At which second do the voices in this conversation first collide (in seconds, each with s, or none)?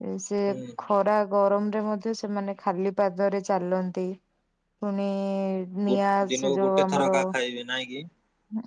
5.9 s